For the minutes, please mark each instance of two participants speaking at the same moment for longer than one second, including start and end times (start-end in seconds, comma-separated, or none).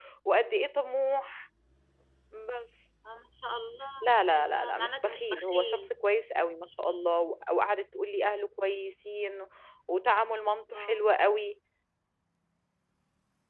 4.0-5.9